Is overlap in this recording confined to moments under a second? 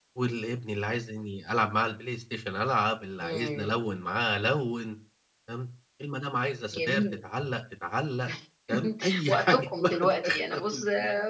No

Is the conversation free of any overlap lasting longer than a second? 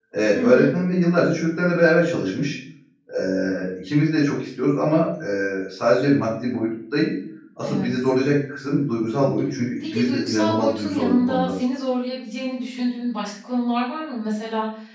No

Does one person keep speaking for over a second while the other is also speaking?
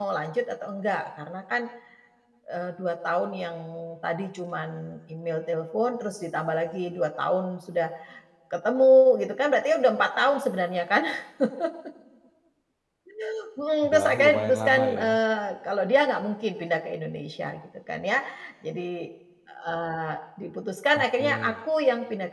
Yes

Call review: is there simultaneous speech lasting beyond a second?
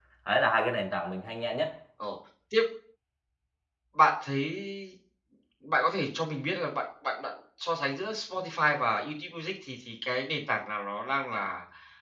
No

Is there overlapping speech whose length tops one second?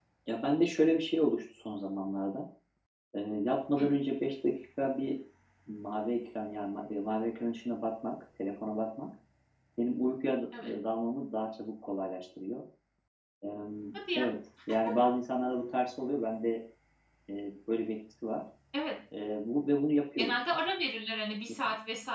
No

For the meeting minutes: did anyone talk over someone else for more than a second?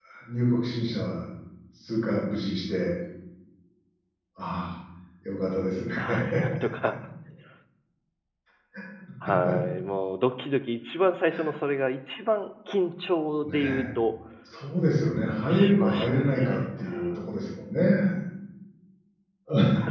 Yes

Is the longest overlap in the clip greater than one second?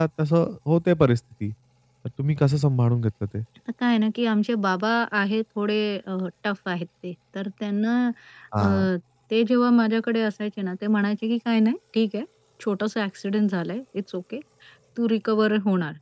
No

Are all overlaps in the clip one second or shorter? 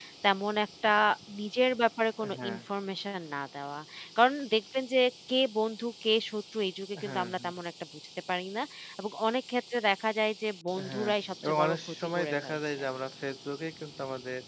No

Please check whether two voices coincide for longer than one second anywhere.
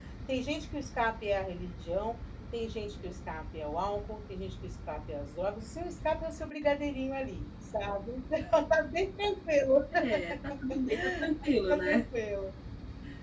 No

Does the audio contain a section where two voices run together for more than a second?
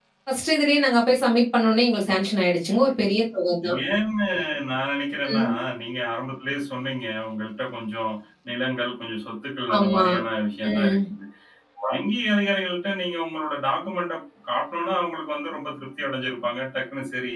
No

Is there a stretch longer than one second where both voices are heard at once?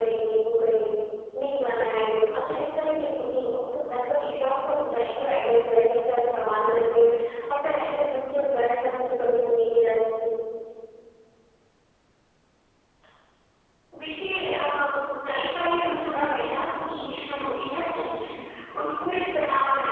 No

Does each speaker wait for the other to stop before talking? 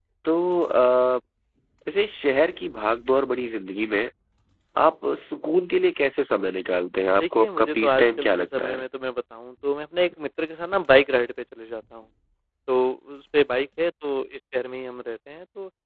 No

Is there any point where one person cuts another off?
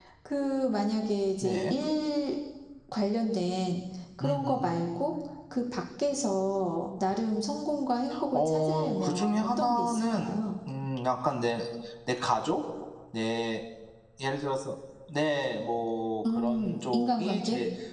Yes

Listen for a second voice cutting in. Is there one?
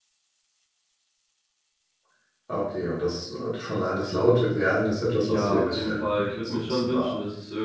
Yes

